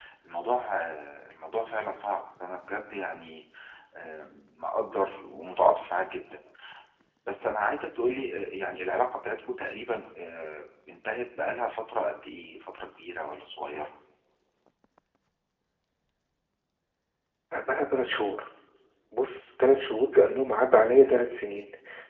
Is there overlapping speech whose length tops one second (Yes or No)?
No